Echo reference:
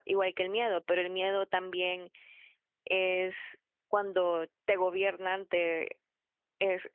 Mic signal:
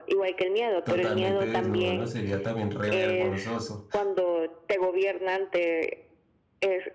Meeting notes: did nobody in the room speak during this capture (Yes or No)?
No